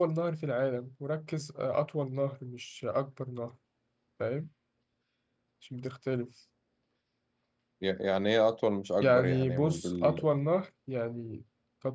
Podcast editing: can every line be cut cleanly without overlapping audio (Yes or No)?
No